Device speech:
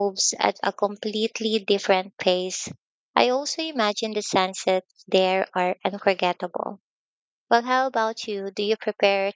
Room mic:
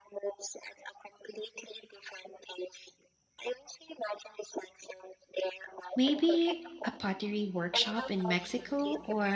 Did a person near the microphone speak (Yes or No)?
Yes